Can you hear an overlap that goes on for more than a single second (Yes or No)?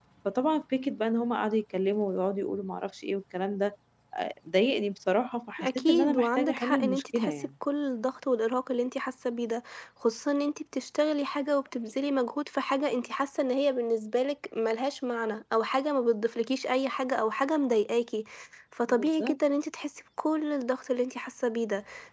Yes